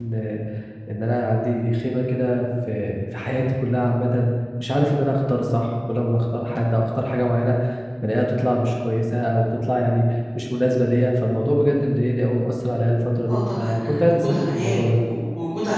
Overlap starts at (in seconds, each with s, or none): 13.3 s